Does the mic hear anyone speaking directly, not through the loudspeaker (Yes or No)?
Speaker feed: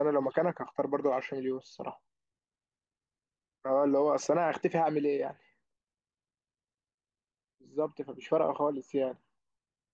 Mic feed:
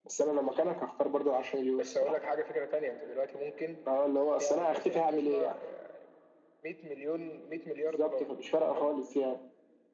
Yes